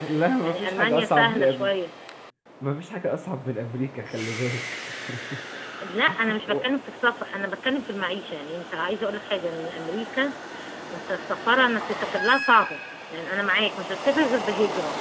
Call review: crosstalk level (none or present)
present